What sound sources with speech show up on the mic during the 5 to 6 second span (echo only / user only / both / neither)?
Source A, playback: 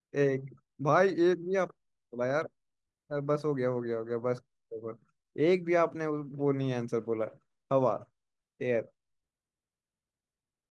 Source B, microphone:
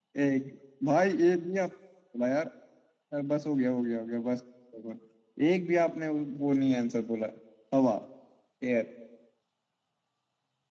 echo only